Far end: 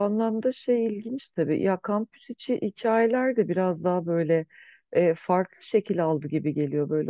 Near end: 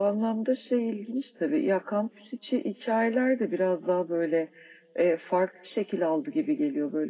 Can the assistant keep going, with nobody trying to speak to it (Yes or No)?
Yes